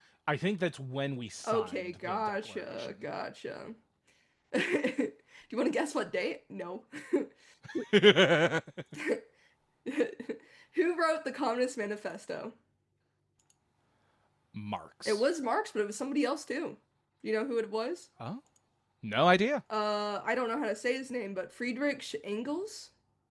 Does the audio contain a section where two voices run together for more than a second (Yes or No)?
Yes